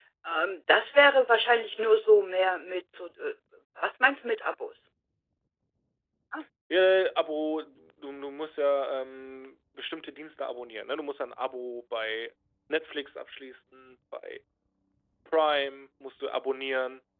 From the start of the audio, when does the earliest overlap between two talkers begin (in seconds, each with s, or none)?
none